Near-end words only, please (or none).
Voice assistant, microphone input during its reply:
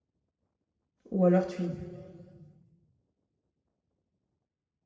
ou alors tu y